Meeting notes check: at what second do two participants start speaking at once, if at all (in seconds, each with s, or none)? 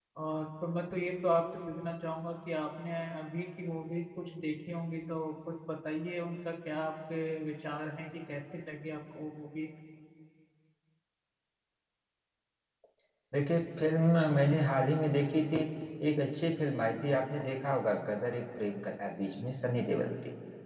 none